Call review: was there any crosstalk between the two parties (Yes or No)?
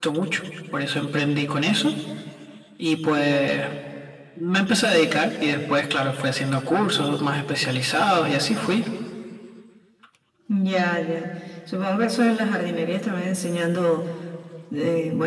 No